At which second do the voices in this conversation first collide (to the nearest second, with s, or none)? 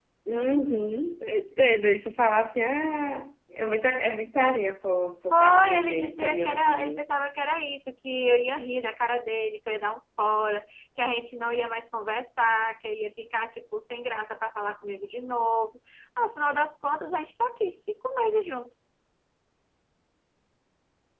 5 s